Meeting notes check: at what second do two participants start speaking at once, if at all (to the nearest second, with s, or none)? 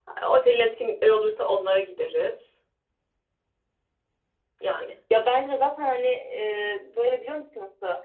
none